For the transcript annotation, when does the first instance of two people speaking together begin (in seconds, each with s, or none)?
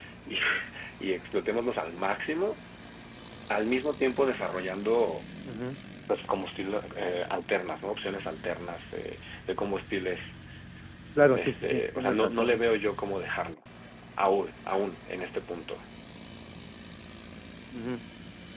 11.4 s